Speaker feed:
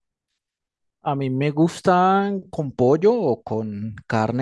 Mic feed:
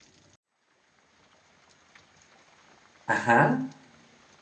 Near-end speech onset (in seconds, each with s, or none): 3.1 s